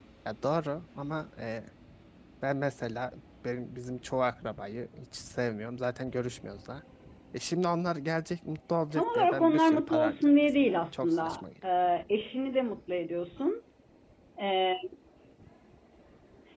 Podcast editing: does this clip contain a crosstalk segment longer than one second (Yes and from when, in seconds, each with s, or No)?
Yes, from 8.9 s